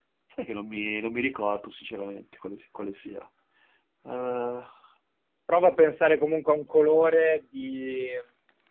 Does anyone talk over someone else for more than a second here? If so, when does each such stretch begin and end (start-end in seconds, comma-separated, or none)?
none